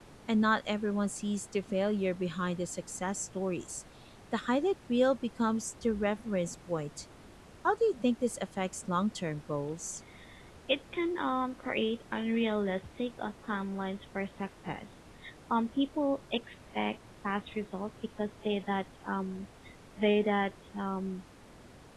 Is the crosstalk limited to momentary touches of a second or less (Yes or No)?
Yes